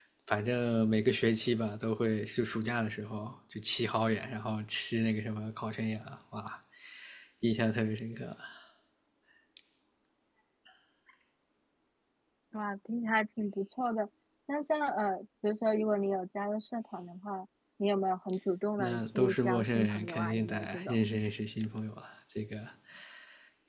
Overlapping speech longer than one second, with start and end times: 18.8-21.1

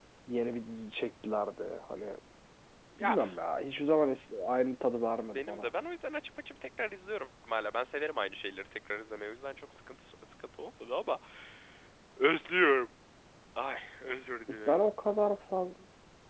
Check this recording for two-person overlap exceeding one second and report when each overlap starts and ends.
none

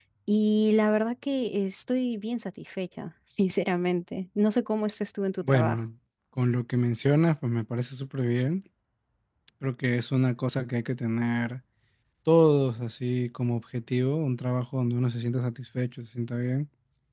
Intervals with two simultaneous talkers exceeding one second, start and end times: none

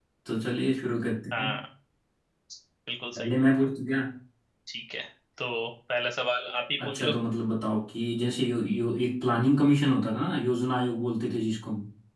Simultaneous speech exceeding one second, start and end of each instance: none

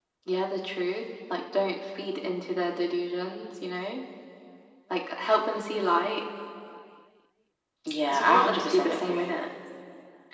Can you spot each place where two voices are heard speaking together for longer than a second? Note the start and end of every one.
8.1-9.3

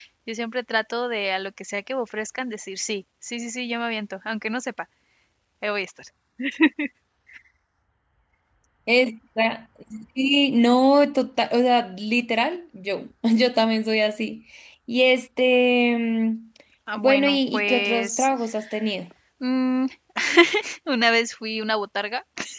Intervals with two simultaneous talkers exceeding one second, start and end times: 17.0-18.3

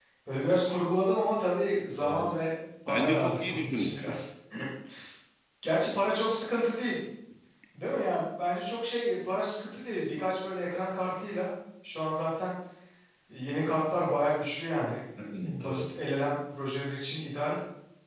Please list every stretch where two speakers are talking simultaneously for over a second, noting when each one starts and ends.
2.9-4.2

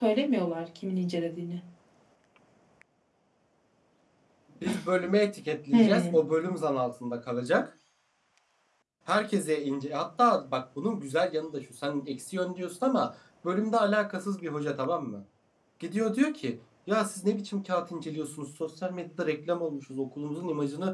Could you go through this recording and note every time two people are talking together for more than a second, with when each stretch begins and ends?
none

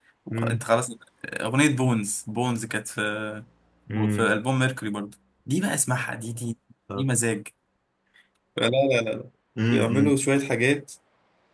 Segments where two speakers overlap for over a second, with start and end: none

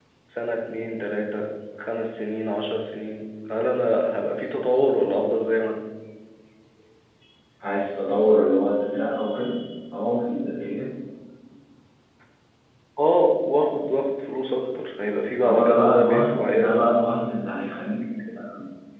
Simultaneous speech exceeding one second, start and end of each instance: 15.4-17.0

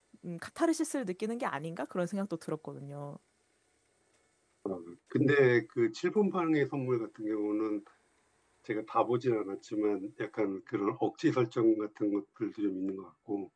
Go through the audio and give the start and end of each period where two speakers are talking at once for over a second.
none

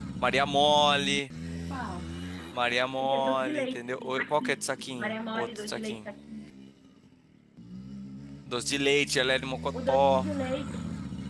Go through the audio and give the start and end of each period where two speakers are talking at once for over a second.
3.0-6.0

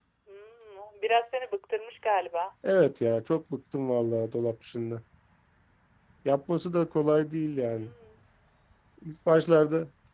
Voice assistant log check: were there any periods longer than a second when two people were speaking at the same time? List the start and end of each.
none

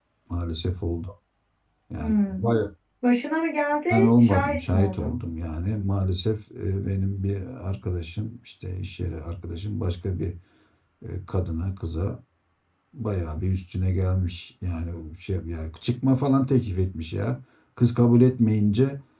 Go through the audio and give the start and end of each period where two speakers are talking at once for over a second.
3.9-5.2

